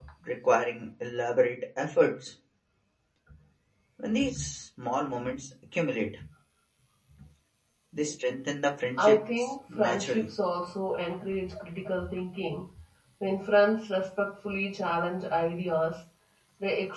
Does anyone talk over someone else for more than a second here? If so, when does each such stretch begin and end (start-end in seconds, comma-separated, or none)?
9.0-10.3